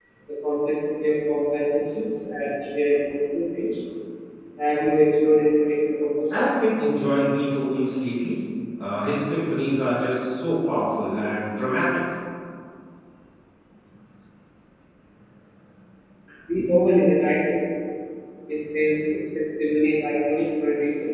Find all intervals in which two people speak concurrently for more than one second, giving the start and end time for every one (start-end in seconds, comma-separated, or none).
none